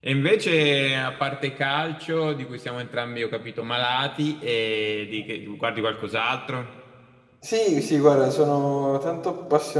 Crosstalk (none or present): none